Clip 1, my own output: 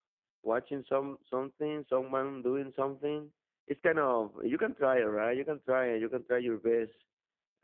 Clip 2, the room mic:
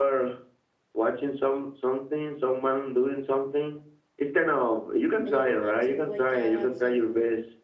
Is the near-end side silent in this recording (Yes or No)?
No